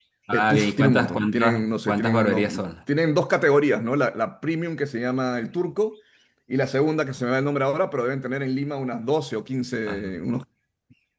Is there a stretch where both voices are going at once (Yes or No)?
Yes